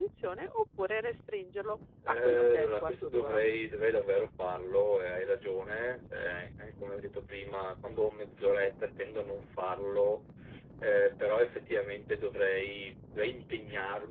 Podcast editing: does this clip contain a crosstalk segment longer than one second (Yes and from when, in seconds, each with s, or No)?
Yes, from 2.0 s